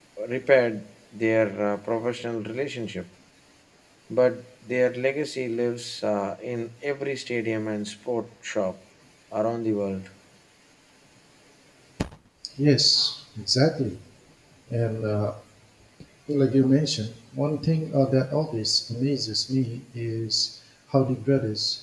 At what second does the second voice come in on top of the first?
none

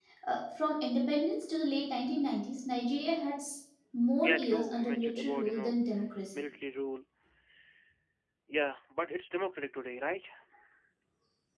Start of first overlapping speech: 4.2 s

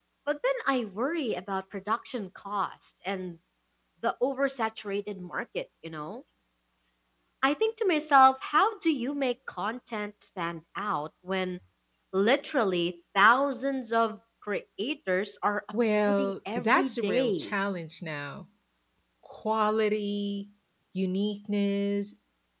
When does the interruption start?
16.0 s

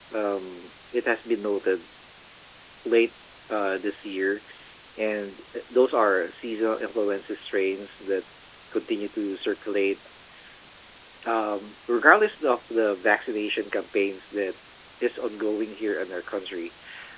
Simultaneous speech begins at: none

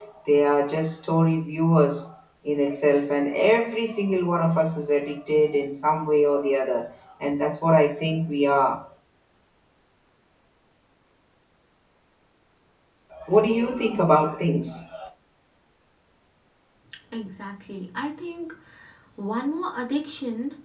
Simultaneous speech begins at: none

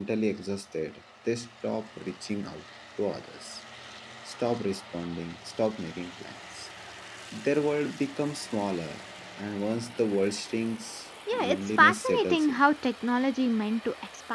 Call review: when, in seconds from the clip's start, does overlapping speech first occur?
11.3 s

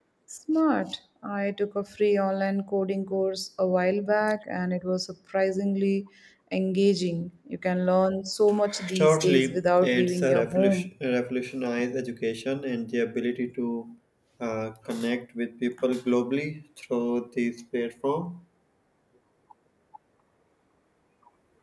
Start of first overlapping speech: 8.7 s

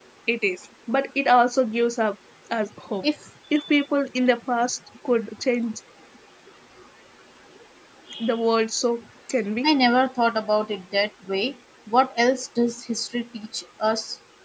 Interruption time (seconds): none

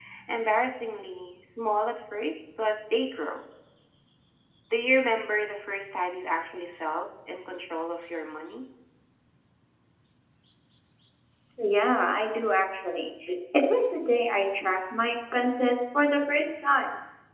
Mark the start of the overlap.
none

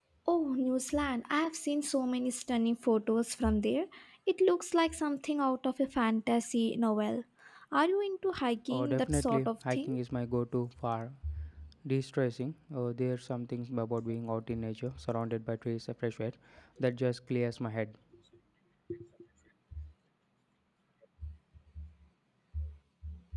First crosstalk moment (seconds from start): 8.7 s

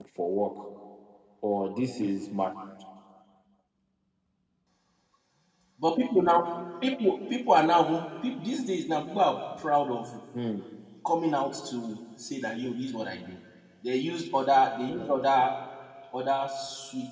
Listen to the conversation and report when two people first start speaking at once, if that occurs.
none

